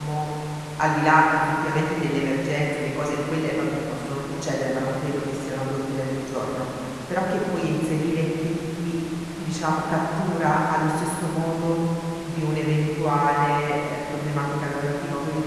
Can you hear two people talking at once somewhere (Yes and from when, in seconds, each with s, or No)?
No